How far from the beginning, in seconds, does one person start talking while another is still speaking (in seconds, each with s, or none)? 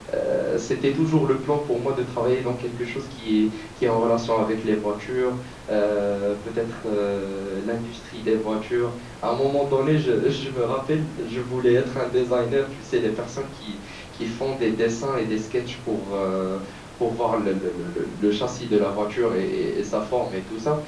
none